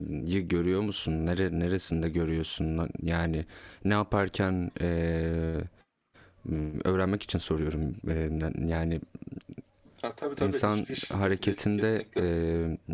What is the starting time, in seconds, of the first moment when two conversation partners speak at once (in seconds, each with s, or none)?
10.4 s